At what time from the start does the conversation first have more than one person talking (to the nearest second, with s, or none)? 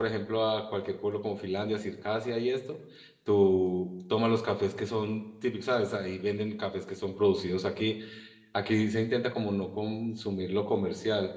none